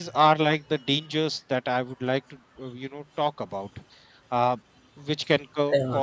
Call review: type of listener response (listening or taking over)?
listening